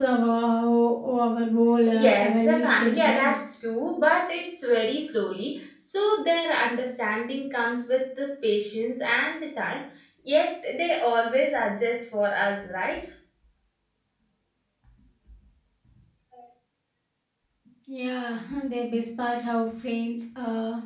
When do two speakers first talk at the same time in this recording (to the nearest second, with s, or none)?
2 s